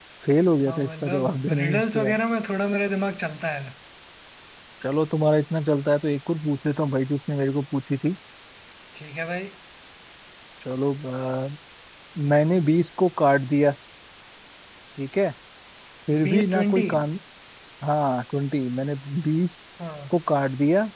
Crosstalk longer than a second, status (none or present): present